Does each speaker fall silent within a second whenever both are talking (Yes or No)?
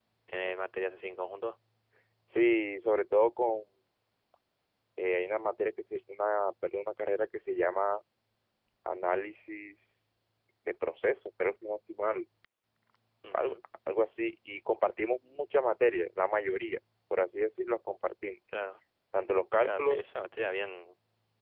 Yes